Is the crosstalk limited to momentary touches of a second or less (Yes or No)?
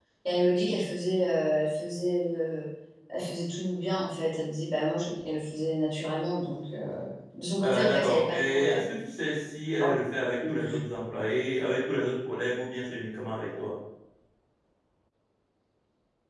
No